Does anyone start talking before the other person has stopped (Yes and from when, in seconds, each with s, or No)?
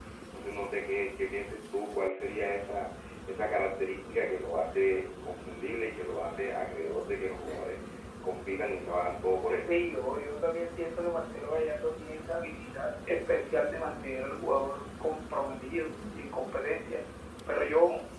No